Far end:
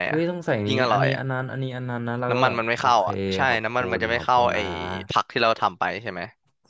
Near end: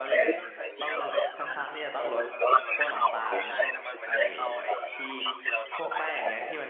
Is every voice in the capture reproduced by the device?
No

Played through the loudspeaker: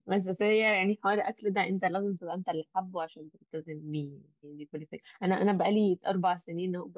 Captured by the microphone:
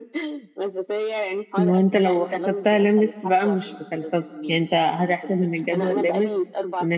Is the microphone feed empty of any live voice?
No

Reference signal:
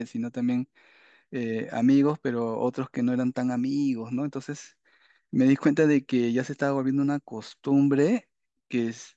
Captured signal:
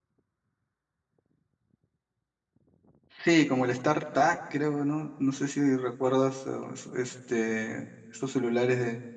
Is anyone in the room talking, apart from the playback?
Yes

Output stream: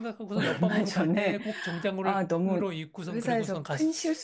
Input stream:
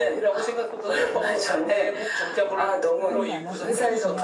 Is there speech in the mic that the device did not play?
Yes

